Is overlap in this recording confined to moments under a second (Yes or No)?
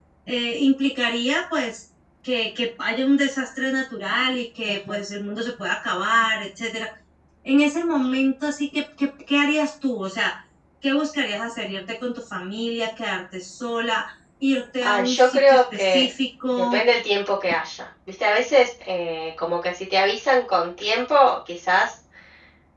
No